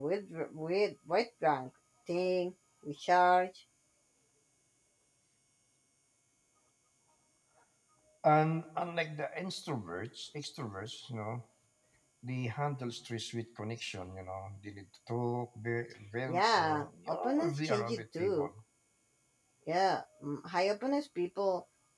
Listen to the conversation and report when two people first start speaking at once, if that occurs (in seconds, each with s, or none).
16.3 s